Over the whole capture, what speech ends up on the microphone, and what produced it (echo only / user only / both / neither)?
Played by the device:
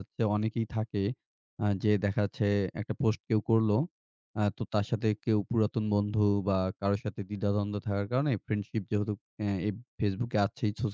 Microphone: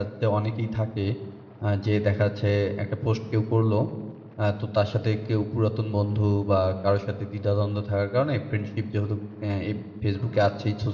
echo only